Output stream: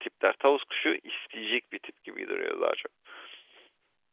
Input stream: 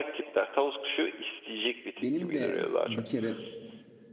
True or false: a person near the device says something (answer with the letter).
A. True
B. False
A